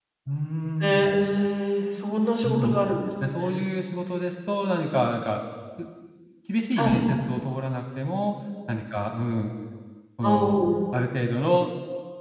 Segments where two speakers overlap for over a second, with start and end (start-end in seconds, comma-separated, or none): none